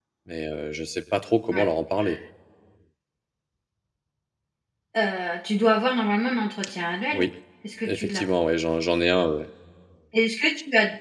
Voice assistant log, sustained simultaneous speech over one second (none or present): none